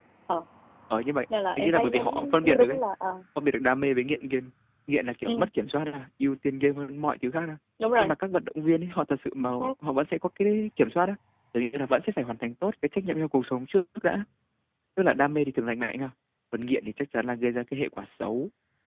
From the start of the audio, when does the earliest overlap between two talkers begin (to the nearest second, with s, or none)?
2 s